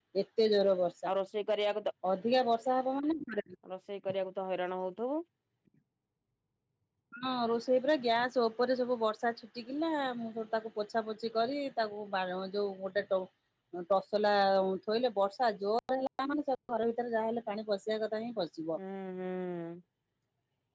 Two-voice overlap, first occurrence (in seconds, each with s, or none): none